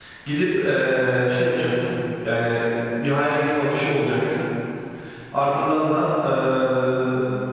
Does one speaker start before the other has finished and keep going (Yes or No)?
No